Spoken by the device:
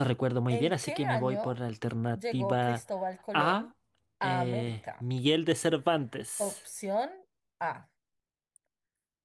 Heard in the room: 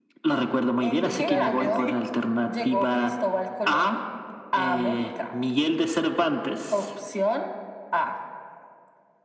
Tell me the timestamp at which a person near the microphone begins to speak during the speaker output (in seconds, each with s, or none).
1.0 s